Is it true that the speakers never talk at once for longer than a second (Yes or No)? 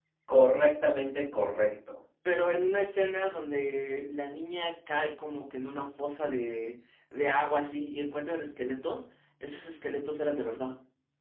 Yes